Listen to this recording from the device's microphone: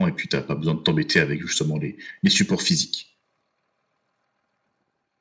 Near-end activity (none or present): none